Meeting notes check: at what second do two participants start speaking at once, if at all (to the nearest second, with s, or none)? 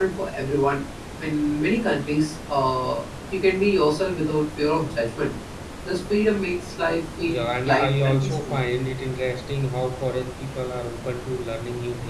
7 s